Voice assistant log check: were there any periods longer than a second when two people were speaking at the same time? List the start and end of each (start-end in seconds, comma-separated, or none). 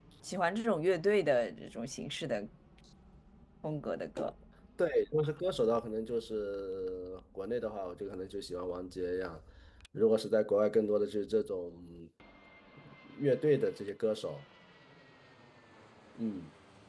none